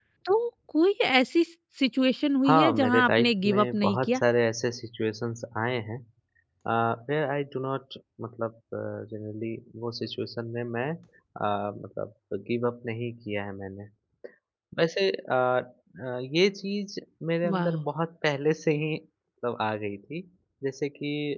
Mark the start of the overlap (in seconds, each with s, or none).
2.5 s